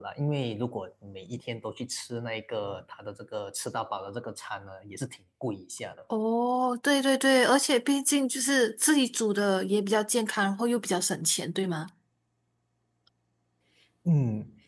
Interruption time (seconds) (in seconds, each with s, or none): none